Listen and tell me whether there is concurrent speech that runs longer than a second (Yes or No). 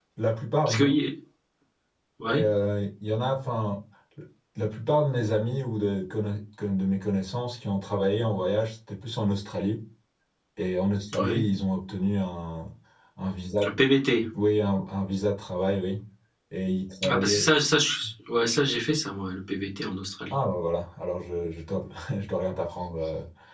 No